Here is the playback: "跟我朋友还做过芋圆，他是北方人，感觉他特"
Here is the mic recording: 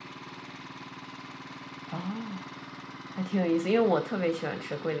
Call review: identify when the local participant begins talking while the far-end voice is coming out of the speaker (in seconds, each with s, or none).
1.9 s